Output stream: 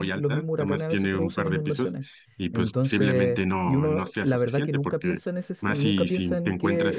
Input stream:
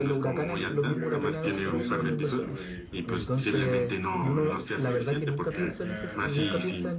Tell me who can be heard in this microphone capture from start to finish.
both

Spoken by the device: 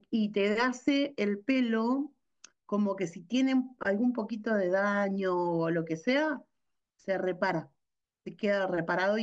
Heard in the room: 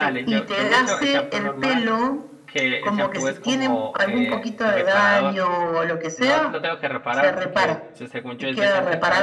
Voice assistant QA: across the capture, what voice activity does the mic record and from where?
both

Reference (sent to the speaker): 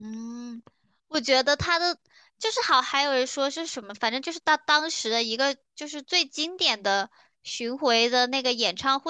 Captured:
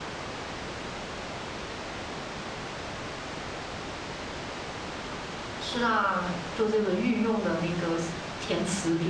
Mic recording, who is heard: user only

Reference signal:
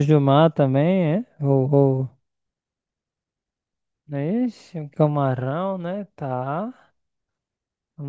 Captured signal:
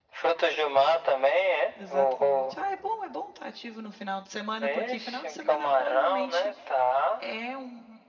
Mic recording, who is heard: both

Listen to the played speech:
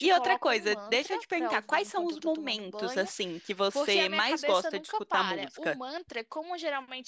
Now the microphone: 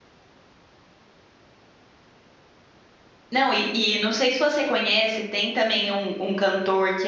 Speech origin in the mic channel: user only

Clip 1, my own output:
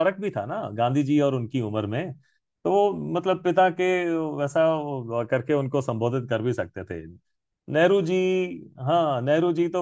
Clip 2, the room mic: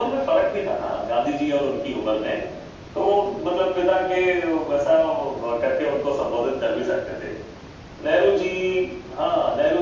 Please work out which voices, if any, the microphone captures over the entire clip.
echo only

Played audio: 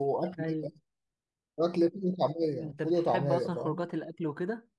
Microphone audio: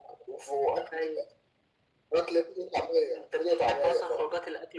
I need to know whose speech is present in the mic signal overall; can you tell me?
echo only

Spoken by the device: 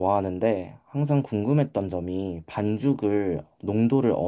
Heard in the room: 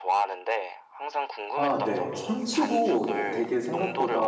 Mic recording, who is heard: both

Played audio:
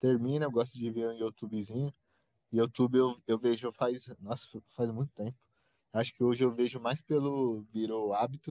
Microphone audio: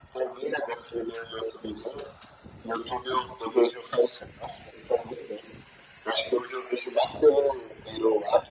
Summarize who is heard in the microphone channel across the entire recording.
echo only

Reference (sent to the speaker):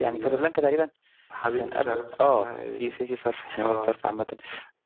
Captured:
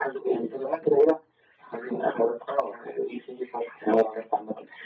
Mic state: echo only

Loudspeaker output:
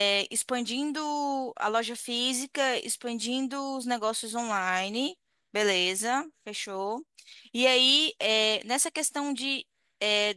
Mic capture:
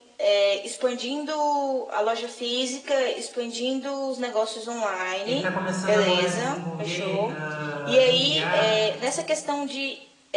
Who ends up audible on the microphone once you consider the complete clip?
both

